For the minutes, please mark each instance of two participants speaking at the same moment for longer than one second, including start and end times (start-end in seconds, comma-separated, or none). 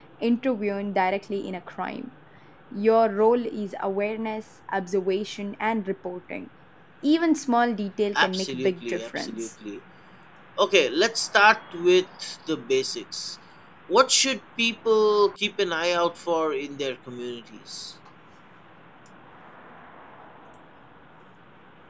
8.1-9.5